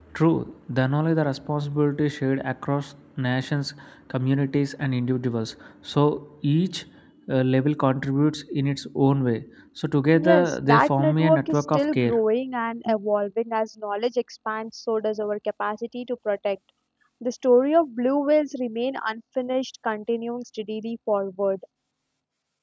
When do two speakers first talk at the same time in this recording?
10.2 s

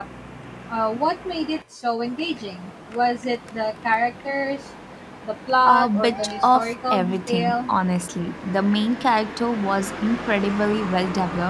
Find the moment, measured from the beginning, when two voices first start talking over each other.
5.7 s

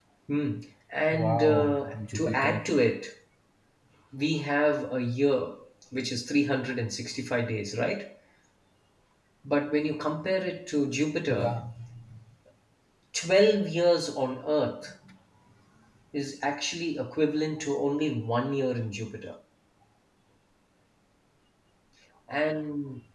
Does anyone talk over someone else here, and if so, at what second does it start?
1.1 s

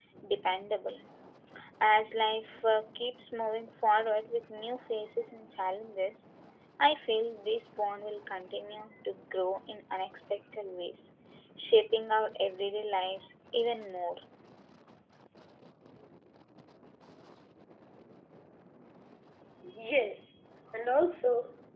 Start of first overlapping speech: none

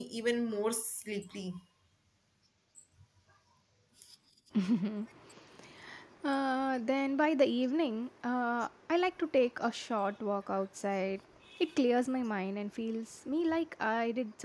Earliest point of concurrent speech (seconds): none

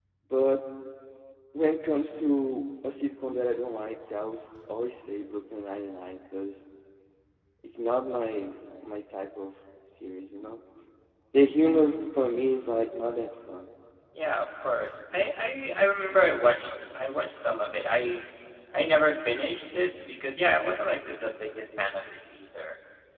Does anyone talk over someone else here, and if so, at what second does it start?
none

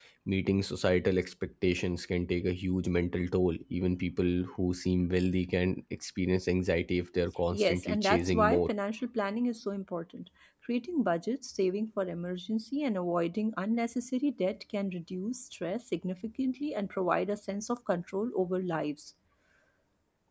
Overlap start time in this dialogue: 7.5 s

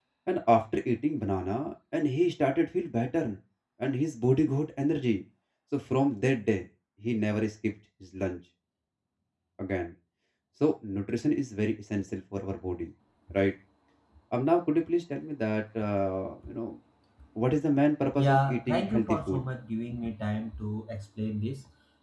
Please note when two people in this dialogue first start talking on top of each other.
18.1 s

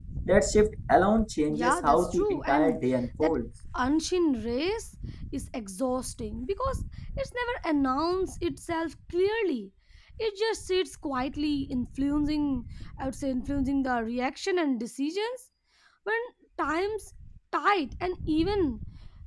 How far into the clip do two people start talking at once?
1.5 s

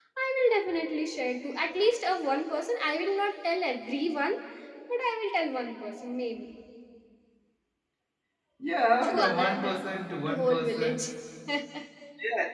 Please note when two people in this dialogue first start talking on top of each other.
9.0 s

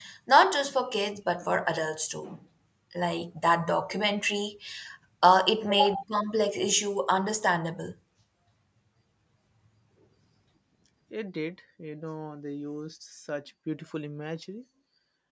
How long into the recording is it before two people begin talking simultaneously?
none

